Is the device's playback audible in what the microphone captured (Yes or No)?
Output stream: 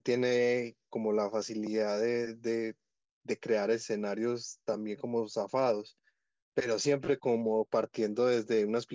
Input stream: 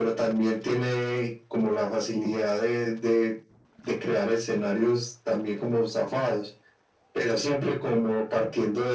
Yes